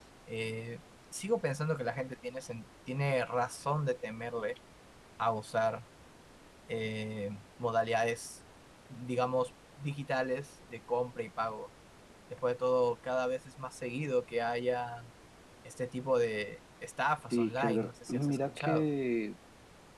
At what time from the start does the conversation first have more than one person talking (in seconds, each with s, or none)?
17.3 s